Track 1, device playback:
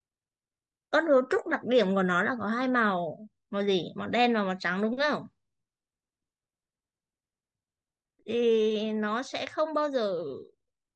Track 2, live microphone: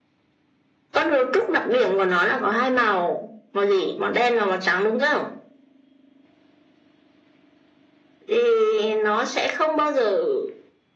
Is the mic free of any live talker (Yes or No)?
Yes